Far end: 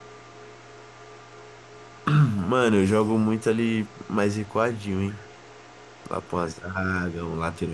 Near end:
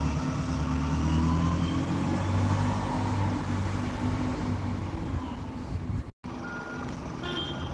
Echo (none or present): none